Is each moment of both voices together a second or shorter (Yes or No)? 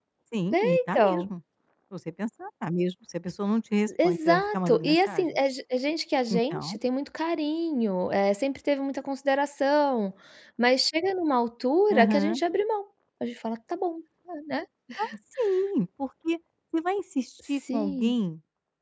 No